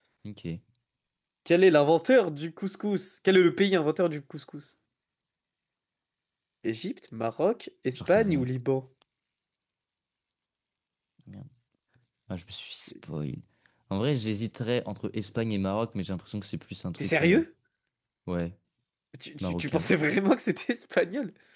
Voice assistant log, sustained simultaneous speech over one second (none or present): none